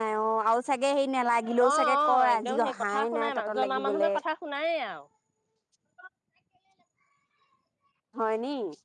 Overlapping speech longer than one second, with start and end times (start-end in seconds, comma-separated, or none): 1.7-4.2